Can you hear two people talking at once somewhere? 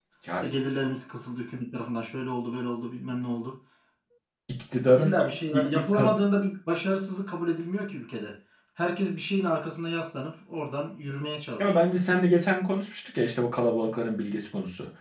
Yes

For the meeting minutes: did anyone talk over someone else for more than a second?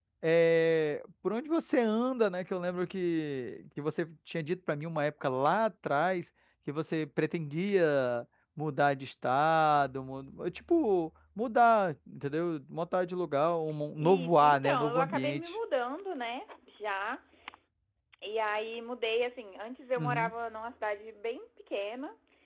Yes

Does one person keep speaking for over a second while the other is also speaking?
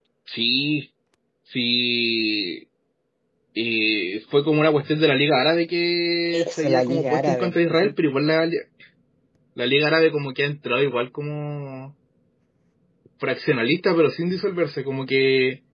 Yes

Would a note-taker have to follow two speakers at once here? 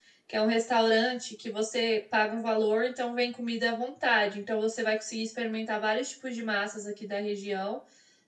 No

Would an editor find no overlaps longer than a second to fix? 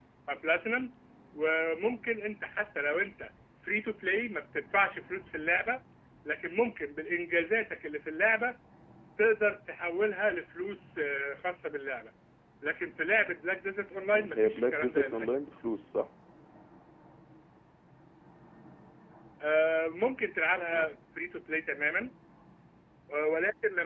No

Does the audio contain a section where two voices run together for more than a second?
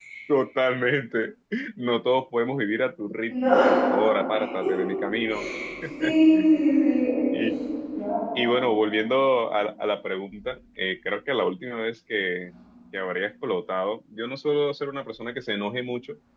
No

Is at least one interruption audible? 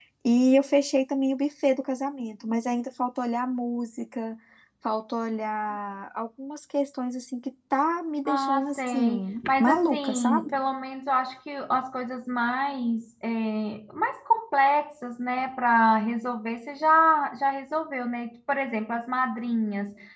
Yes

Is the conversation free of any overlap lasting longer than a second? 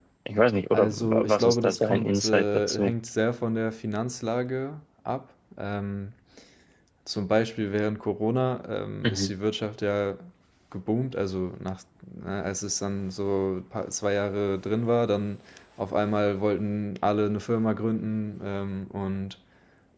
No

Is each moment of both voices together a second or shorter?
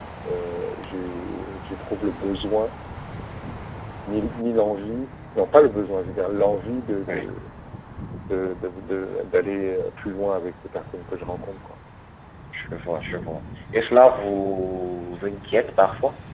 Yes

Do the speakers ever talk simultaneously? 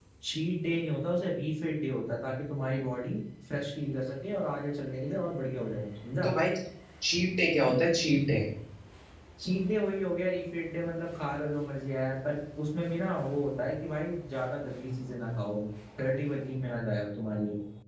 No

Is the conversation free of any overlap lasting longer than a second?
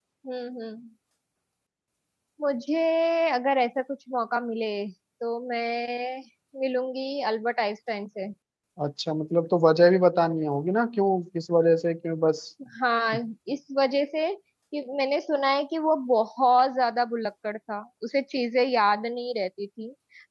Yes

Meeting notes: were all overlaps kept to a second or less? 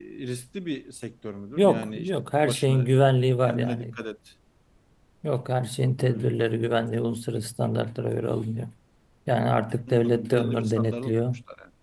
No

